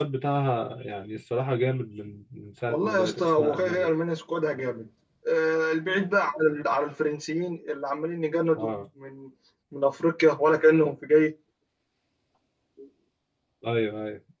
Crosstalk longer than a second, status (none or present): present